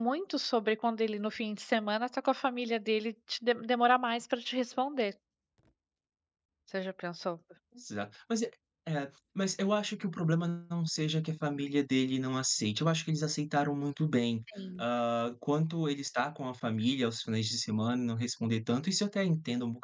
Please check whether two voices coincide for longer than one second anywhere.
No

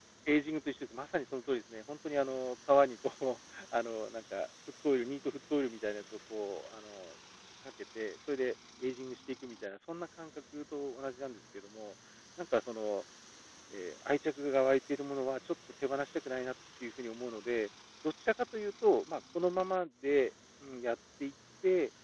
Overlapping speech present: No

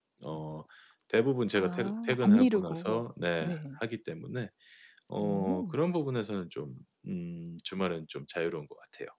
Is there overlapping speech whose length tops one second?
Yes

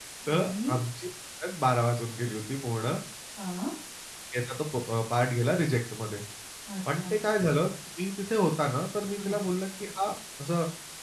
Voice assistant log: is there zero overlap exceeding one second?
Yes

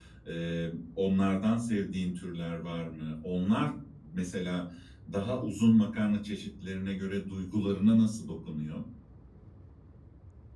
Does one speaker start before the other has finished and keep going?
No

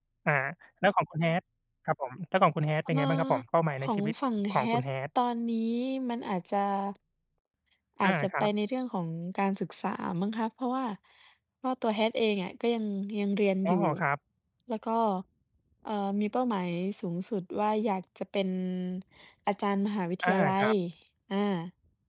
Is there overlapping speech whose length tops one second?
No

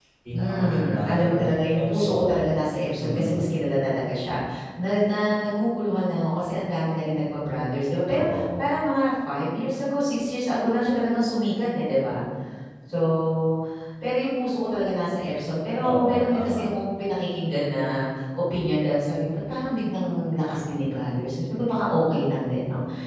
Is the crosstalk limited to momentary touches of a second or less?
No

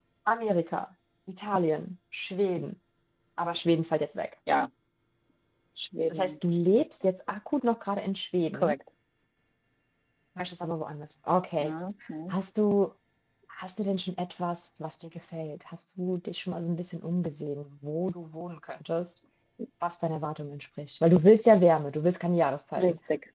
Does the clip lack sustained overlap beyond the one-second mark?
Yes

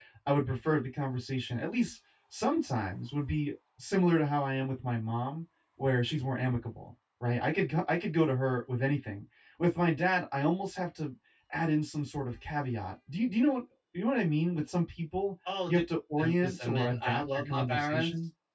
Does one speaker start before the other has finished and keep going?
Yes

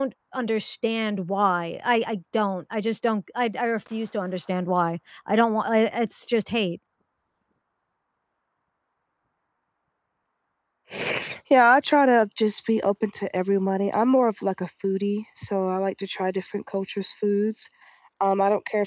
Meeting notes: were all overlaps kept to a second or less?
Yes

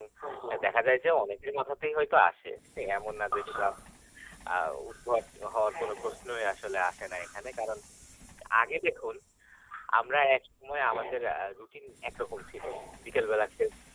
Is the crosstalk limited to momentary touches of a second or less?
Yes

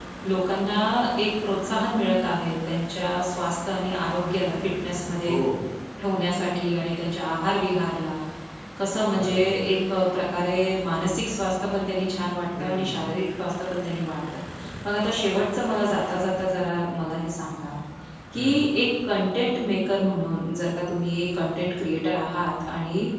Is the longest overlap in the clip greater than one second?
No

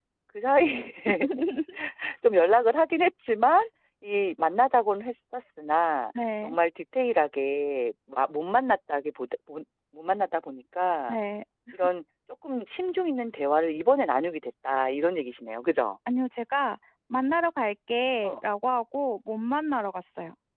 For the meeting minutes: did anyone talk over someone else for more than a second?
No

